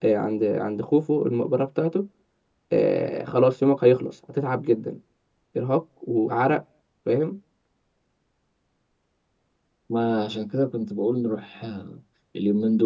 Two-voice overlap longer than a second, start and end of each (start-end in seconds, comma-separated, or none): none